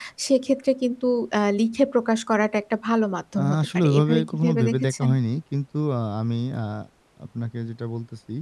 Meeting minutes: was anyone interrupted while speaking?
Yes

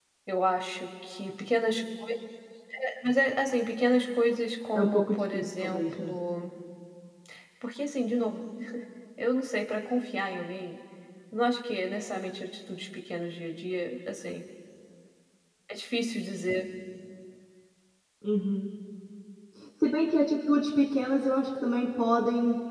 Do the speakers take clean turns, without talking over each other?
No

